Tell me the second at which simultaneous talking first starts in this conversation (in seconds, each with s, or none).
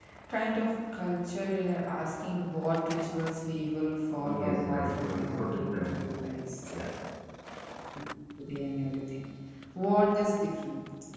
4.2 s